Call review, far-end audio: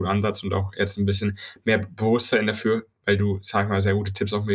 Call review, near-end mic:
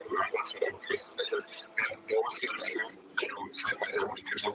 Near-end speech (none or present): none